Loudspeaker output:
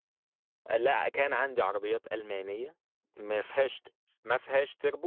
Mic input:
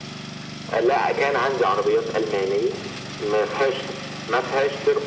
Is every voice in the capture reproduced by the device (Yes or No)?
Yes